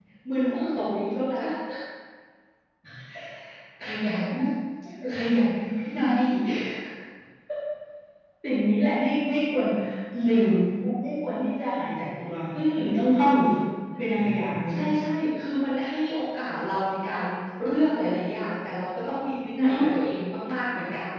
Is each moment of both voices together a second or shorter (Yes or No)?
Yes